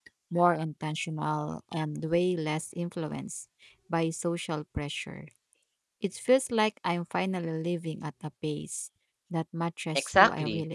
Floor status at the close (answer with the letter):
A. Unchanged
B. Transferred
B